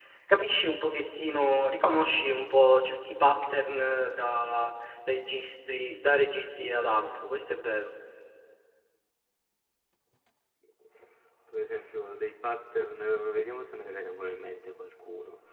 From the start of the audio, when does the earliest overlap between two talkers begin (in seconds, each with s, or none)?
none